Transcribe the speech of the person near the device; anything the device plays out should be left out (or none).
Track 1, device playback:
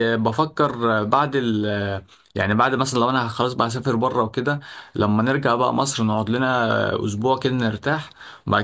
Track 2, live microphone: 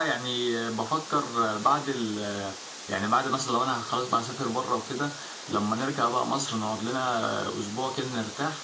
none